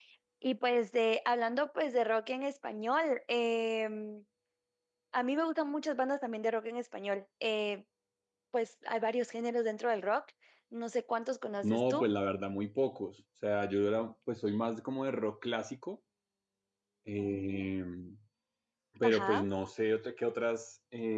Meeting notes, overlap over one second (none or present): none